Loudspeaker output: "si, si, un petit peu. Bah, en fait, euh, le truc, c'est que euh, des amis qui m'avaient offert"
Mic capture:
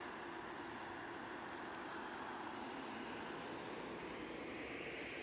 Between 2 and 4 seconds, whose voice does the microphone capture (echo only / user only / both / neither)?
neither